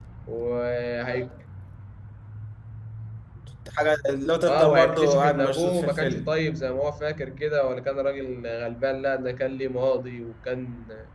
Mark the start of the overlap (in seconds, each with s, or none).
4.5 s